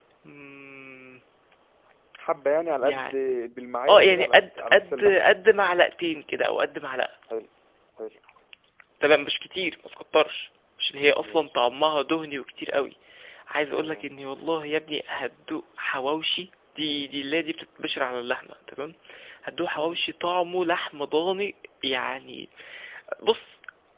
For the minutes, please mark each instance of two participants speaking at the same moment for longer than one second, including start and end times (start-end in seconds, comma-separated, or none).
3.9-5.1